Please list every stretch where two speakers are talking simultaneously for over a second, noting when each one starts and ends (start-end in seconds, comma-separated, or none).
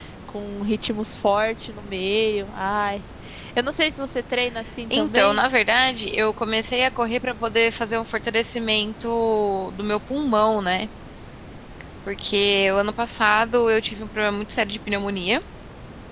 none